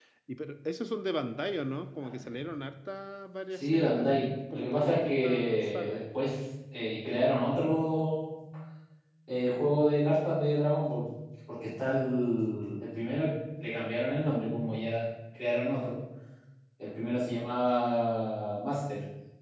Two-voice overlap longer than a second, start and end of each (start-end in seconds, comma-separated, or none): 3.5-6.0